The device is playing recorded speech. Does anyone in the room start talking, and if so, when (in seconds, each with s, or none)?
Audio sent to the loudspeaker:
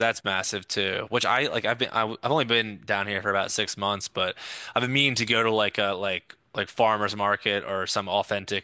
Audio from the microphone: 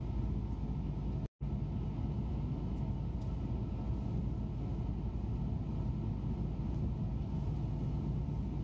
none